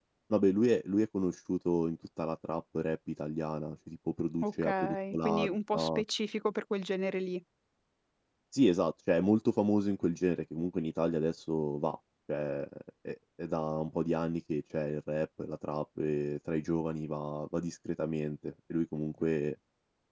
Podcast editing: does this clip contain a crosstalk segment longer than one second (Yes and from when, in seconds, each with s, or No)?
Yes, from 4.4 s